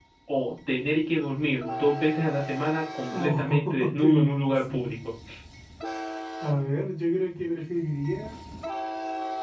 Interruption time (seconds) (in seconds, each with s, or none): 3.1 s